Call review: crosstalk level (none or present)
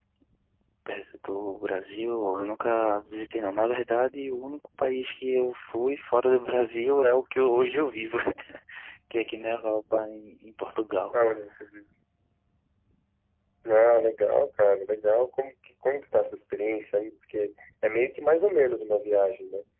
none